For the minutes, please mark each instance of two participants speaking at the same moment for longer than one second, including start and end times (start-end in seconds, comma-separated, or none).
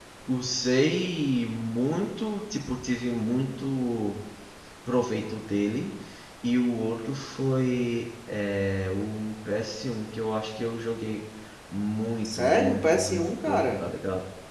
12.2-13.9